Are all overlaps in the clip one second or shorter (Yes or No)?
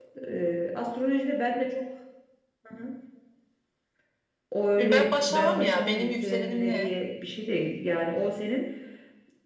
No